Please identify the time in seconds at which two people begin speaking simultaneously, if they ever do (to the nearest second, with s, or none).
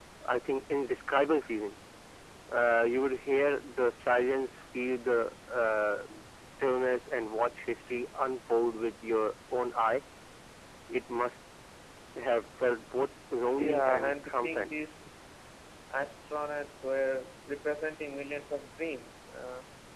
14 s